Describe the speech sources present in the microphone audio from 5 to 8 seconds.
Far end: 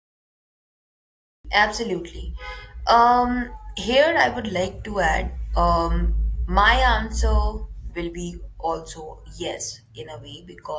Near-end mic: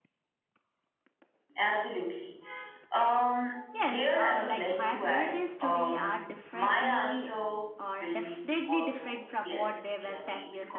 both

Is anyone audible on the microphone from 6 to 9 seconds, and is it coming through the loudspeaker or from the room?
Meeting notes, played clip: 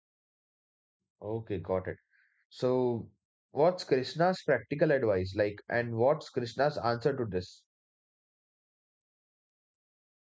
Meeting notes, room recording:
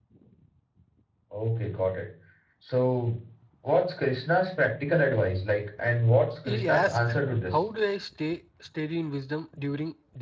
both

